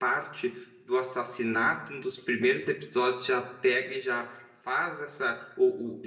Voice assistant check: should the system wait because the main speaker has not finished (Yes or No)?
Yes